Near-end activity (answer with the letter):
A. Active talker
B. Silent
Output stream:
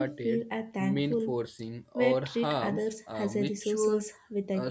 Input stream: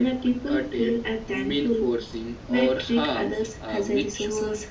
B